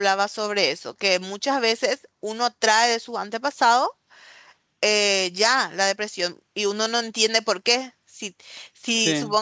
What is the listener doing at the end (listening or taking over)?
listening